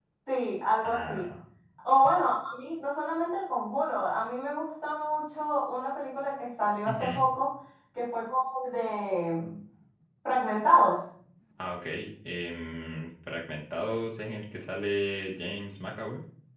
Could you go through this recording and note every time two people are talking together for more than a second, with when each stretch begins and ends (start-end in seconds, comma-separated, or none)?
none